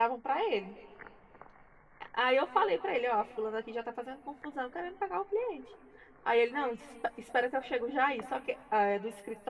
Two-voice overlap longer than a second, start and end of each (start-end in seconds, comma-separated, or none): none